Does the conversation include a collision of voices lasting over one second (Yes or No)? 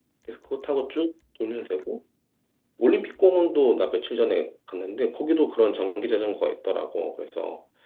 No